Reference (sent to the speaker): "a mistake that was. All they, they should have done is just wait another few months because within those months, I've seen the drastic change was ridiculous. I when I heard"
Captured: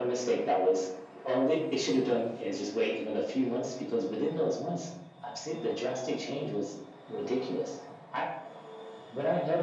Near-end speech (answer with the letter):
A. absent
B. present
A